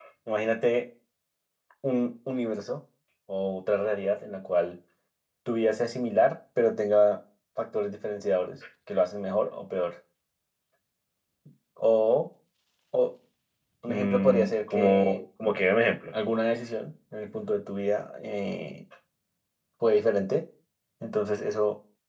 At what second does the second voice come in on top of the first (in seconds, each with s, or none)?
13.9 s